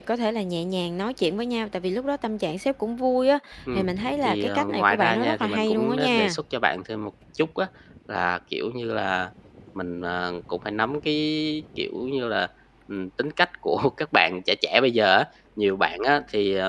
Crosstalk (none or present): present